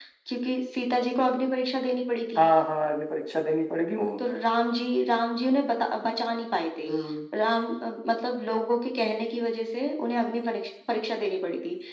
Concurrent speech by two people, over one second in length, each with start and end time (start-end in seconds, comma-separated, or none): none